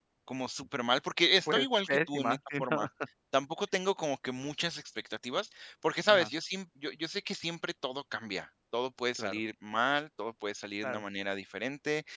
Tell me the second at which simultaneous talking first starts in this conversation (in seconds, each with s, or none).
1.5 s